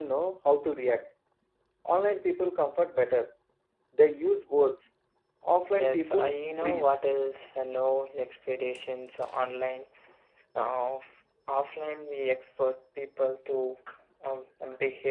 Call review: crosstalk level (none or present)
present